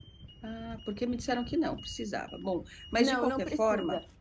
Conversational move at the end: taking over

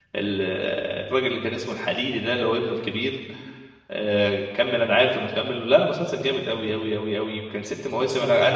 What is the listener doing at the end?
listening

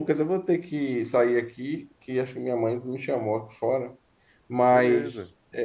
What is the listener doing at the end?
listening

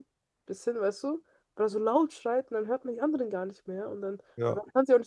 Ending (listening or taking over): listening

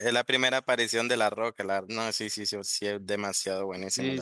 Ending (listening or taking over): taking over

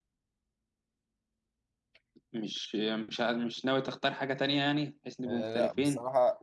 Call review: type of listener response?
taking over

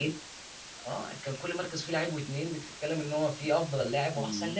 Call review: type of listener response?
taking over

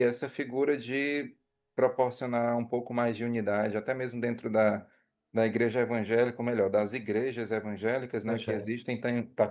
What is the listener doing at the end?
listening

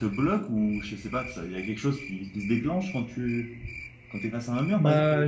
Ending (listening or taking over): taking over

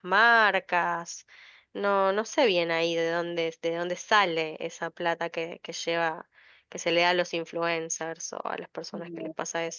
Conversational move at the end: taking over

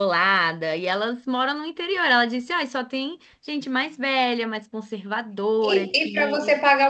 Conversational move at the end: taking over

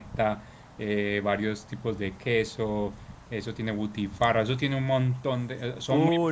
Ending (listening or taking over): taking over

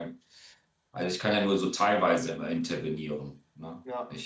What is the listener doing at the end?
listening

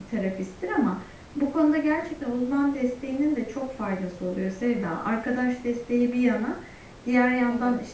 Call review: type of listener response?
listening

